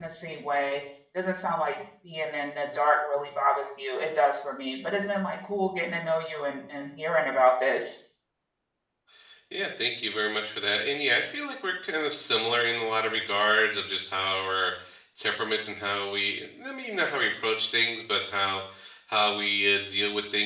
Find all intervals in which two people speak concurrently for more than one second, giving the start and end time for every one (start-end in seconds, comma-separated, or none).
none